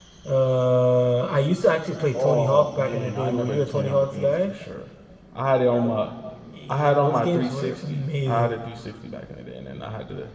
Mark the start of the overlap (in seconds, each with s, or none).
2.1 s